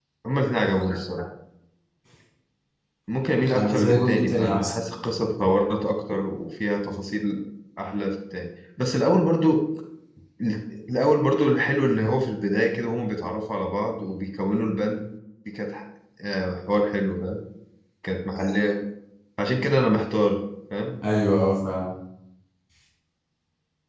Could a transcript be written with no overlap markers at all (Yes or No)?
No